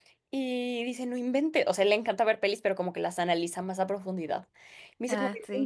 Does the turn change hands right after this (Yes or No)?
No